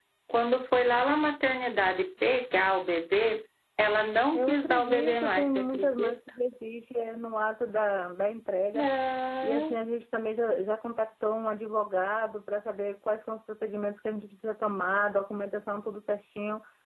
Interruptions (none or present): present